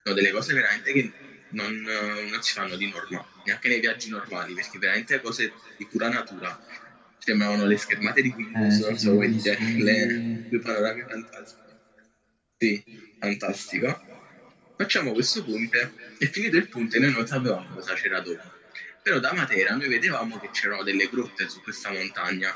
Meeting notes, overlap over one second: present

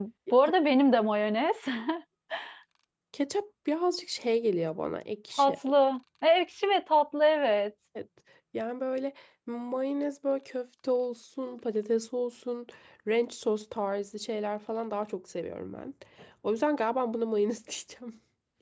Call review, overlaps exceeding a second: none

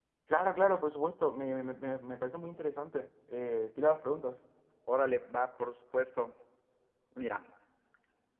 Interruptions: none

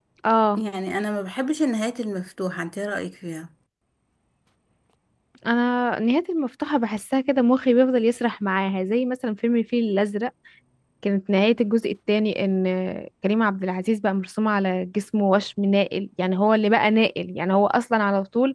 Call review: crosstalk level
none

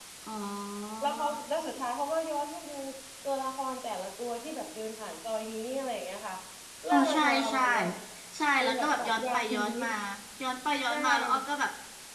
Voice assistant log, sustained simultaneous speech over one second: present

